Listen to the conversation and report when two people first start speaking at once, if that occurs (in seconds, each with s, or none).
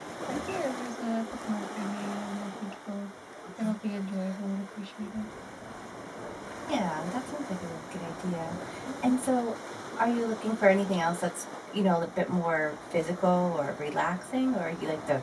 none